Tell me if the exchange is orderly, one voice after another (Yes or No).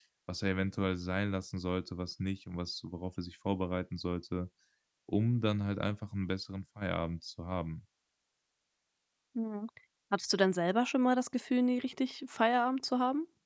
Yes